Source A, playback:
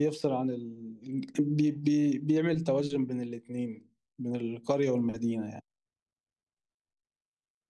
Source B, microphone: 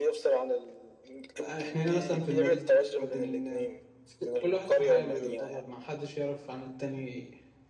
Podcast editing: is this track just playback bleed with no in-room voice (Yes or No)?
No